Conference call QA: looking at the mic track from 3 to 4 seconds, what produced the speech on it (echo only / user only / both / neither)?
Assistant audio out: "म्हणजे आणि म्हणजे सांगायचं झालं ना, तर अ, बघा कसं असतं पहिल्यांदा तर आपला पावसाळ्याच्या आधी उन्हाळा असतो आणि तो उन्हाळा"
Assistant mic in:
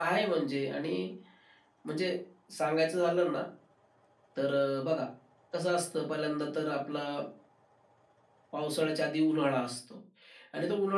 echo only